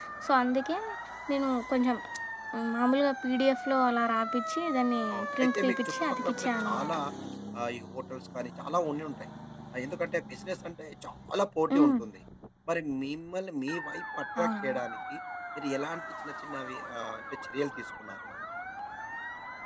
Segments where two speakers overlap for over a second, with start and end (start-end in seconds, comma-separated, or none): 5.1-6.9